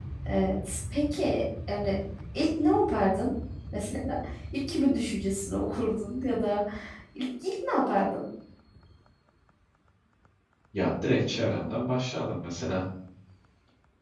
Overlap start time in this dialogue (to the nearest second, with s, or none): none